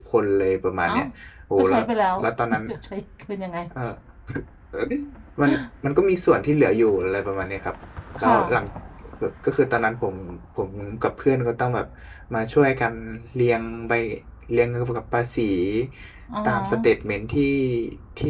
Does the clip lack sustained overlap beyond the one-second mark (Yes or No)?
Yes